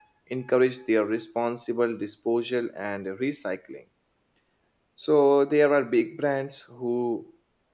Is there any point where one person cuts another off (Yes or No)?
No